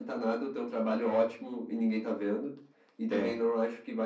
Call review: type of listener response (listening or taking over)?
listening